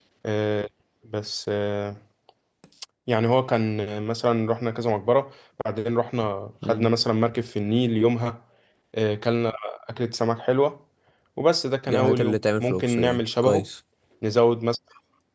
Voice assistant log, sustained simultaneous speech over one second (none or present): present